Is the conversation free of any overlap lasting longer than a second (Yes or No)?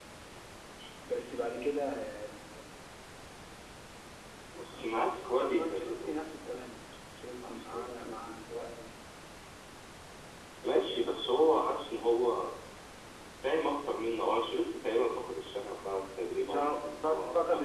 No